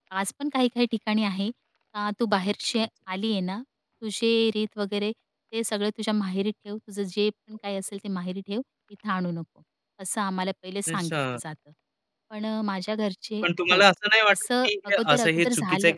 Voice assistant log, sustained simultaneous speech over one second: present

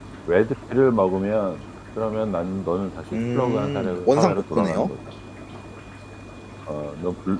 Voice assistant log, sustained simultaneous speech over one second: present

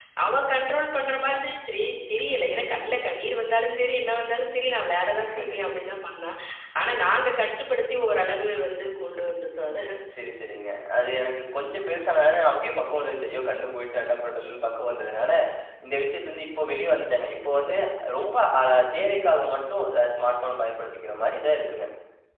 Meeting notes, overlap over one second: none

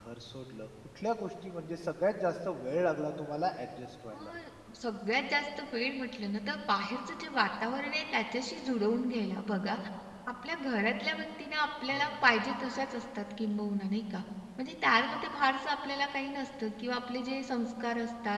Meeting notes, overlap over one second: none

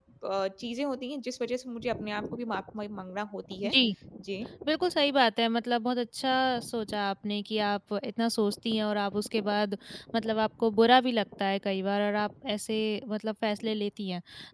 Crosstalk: none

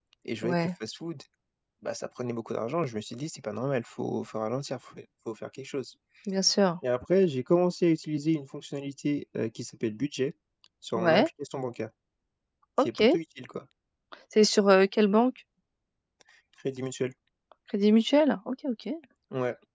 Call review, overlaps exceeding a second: none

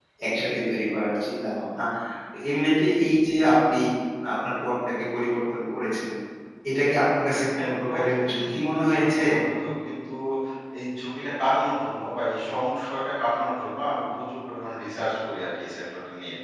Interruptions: present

